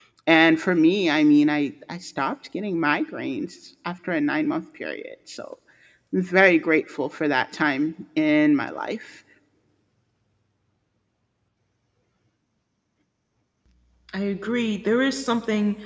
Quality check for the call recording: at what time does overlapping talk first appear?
none

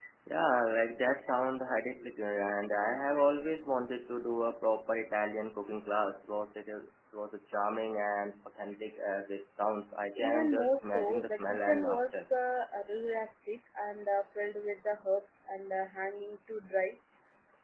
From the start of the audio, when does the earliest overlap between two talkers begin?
10.2 s

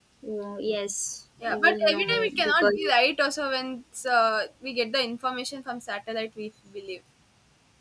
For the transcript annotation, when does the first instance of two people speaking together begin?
1.4 s

